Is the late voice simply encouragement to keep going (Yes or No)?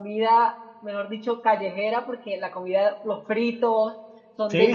No